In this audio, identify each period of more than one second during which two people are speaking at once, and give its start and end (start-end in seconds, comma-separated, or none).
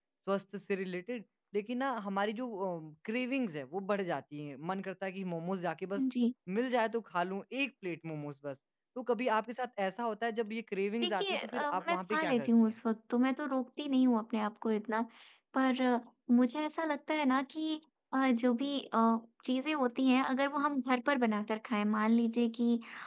11.0-12.7